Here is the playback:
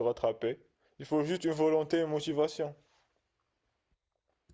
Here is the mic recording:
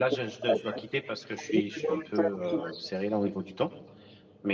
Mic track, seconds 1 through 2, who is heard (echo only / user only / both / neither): both